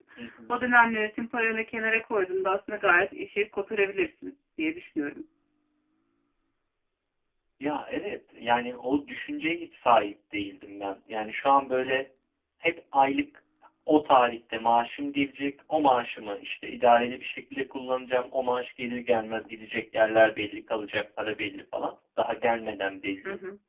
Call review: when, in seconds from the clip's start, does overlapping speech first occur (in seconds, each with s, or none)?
none